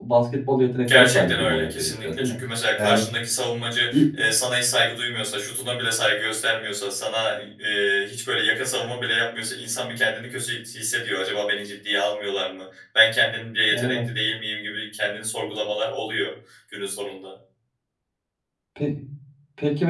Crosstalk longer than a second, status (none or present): present